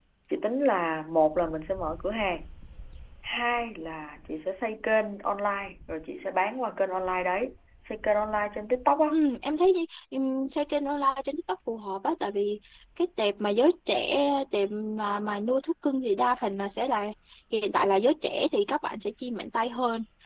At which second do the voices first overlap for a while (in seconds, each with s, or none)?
none